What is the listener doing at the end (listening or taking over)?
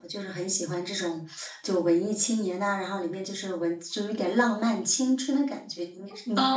taking over